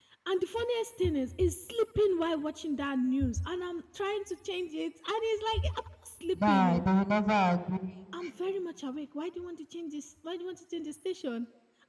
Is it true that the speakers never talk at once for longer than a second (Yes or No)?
Yes